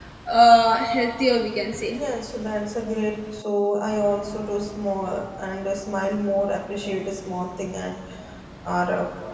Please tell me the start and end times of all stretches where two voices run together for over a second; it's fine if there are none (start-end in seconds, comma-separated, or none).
none